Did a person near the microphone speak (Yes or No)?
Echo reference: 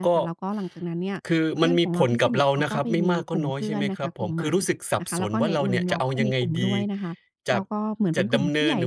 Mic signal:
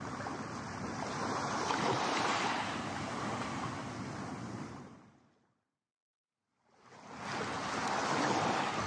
No